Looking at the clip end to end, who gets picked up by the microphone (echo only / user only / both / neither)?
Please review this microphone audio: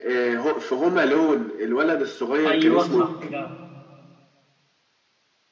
both